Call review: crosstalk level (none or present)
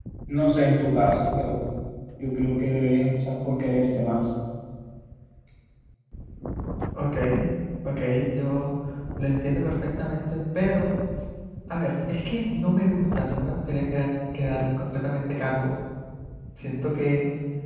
none